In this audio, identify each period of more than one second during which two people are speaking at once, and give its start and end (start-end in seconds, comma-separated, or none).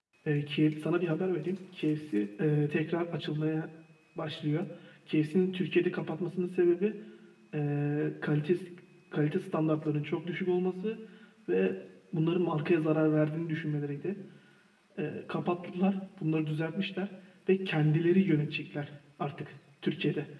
none